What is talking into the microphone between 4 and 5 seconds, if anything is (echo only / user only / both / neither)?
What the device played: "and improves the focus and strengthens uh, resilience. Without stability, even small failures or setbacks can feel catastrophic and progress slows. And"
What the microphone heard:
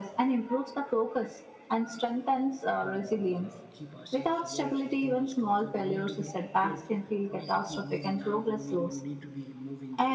both